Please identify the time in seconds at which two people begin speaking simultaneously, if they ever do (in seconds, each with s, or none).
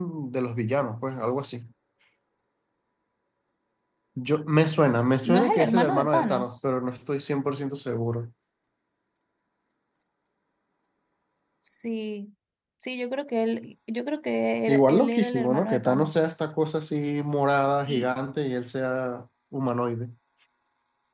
5.2 s